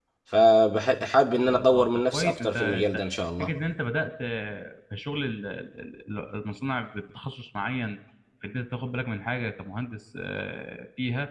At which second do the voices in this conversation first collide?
1.5 s

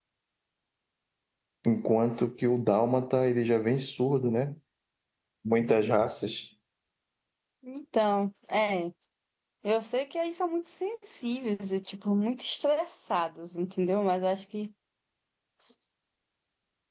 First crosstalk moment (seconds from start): none

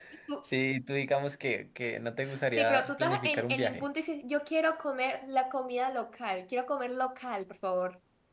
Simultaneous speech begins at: 2.2 s

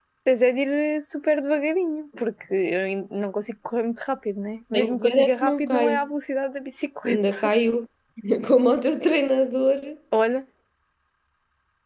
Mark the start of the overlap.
4.7 s

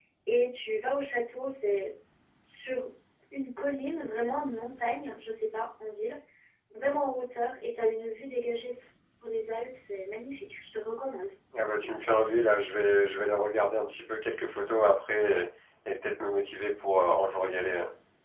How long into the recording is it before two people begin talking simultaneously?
none

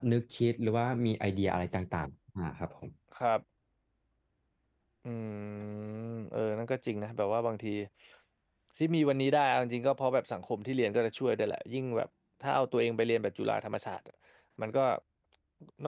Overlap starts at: none

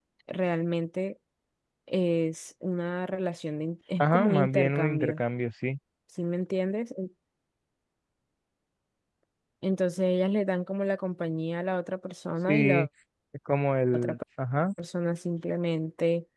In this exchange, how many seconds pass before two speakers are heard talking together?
4.0 s

